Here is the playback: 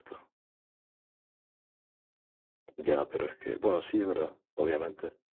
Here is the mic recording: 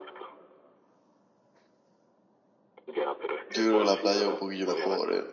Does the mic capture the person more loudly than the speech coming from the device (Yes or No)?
Yes